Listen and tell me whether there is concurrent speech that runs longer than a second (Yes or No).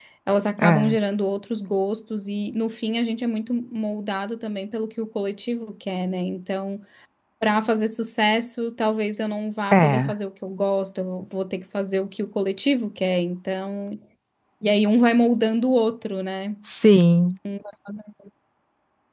No